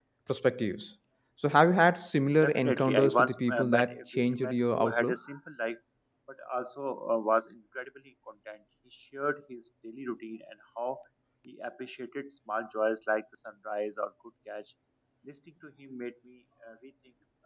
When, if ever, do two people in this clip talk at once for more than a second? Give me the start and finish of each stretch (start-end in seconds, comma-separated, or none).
2.4-5.2